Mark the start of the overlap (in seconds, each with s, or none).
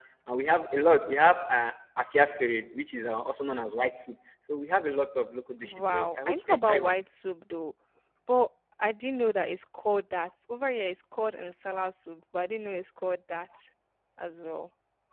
5.6 s